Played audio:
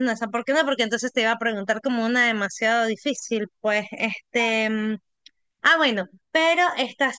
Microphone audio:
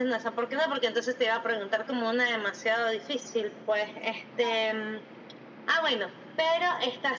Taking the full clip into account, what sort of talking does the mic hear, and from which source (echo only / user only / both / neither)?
echo only